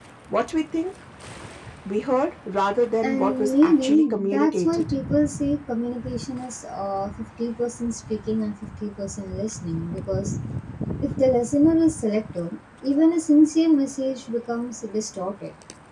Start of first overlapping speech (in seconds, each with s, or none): 3.0 s